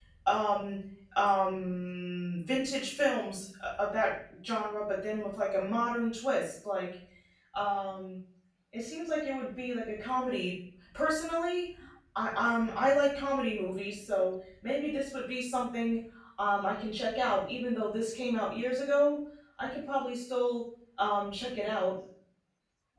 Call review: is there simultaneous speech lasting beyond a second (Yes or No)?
No